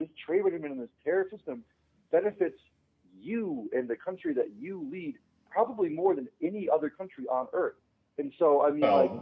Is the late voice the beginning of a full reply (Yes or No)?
Yes